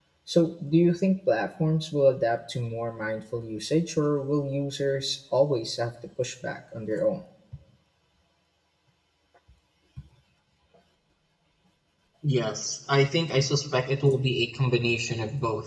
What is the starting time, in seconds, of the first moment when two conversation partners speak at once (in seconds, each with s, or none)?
none